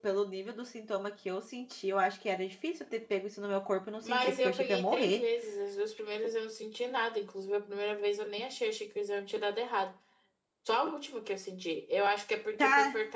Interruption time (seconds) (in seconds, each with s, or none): 4.0 s